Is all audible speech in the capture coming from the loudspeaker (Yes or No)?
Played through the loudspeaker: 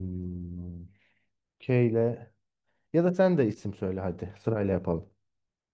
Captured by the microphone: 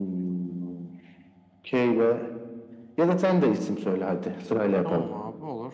No